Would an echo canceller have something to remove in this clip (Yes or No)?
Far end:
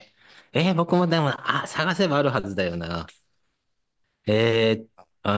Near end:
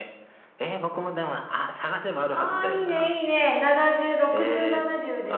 Yes